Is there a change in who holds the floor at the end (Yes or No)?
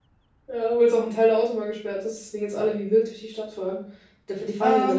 No